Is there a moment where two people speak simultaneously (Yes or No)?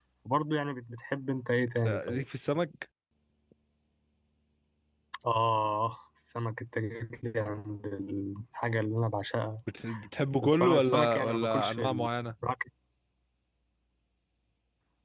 Yes